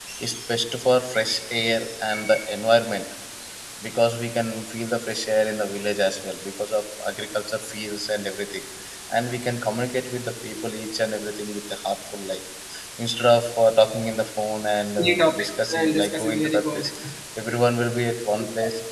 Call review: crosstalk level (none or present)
present